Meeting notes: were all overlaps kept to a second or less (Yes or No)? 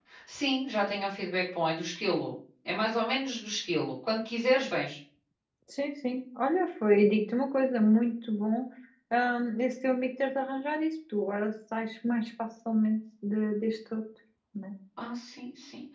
Yes